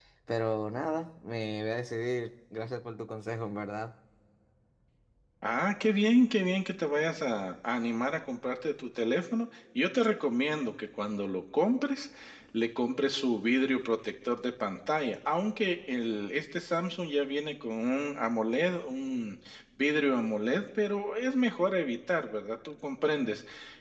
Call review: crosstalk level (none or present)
none